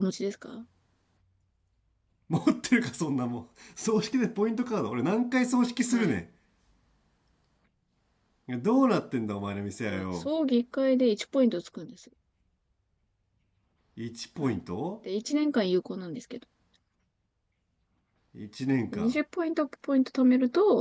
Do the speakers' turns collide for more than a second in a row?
No

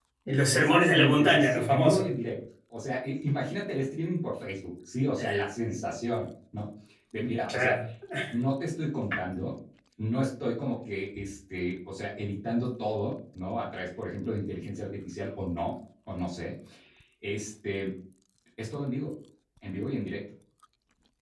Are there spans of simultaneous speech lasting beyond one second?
Yes, from 0.5 s

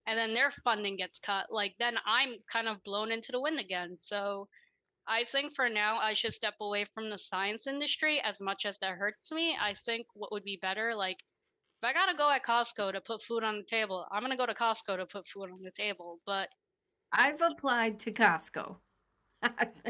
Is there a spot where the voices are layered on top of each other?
No

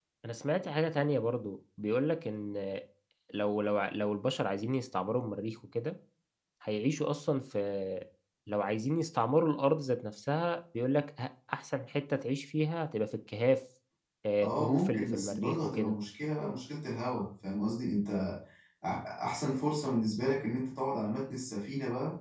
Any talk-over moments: Yes, from 14.4 s

